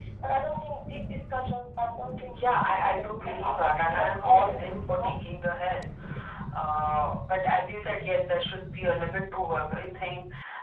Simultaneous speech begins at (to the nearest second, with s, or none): 2 s